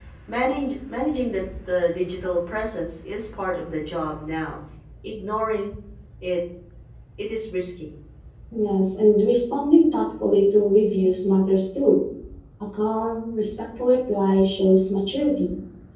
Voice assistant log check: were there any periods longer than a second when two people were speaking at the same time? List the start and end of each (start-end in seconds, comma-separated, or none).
none